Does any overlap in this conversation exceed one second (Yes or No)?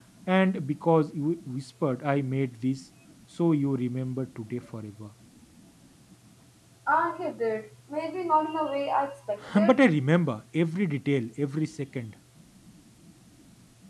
No